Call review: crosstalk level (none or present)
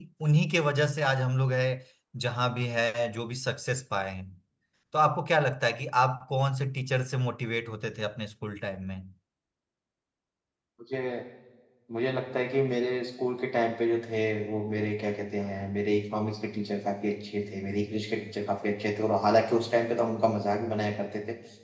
none